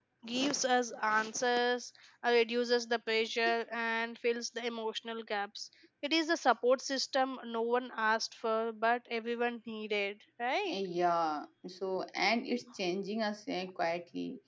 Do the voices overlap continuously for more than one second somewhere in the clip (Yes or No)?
No